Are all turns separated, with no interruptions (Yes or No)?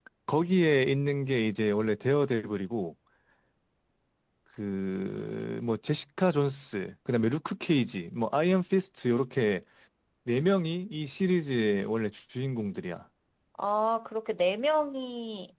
Yes